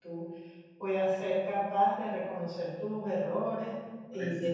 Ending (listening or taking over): listening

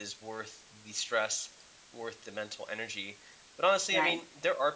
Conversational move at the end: listening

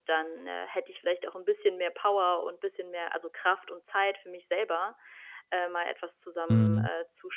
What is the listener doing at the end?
listening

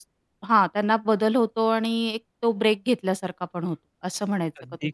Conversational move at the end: taking over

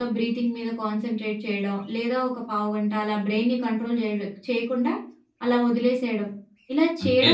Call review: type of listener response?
listening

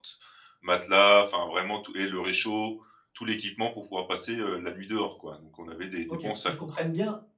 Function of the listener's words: taking over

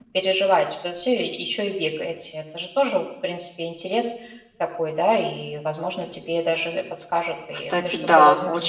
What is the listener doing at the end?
taking over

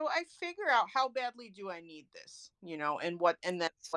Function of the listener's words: listening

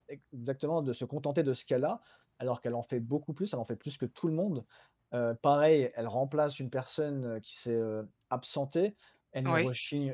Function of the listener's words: listening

